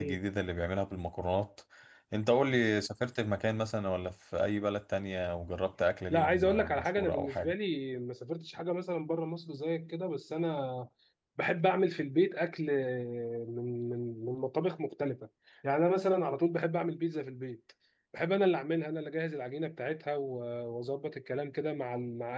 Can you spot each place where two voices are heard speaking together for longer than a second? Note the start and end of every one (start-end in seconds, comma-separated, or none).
6.1-7.5